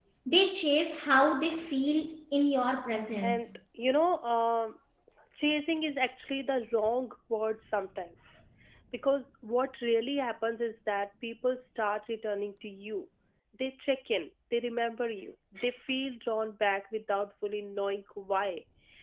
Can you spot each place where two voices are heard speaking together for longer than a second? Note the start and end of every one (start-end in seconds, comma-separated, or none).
none